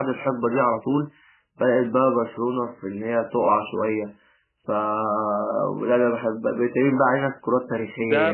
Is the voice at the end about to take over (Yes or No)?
Yes